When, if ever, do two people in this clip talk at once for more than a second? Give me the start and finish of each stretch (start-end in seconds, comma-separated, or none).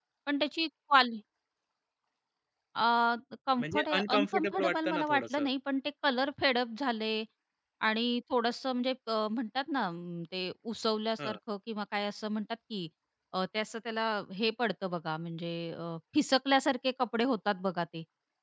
3.6-5.5